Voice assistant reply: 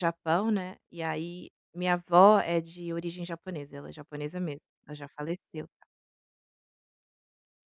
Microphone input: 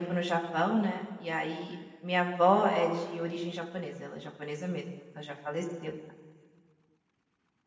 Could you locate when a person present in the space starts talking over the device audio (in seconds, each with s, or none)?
none